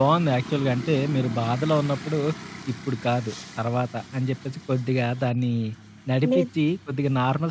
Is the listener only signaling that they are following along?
Yes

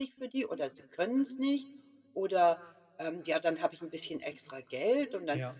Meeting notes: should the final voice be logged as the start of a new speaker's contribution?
No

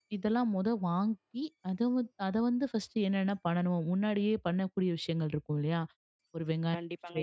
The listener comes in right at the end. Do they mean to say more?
Yes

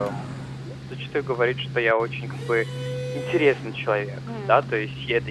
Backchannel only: Yes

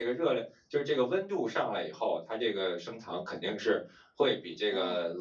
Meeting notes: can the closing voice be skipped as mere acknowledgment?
Yes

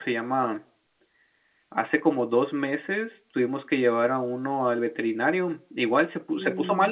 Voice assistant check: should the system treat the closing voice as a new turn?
No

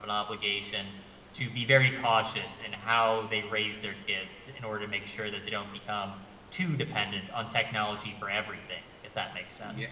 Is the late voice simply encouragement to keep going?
No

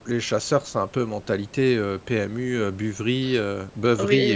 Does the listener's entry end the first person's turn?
Yes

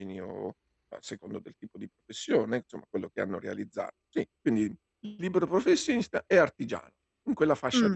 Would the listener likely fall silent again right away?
No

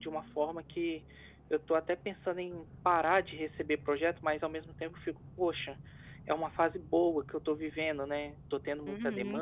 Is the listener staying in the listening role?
No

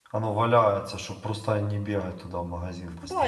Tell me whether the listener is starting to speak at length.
Yes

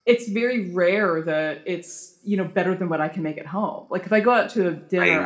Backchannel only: Yes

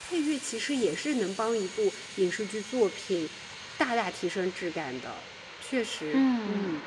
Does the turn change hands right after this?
Yes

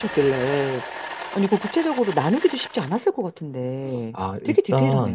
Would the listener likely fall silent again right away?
No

